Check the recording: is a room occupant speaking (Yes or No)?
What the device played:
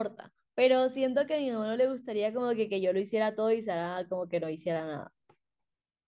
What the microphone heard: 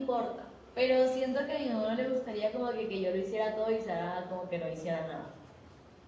No